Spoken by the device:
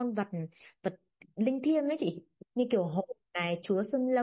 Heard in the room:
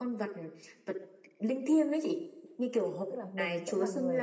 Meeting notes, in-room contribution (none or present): present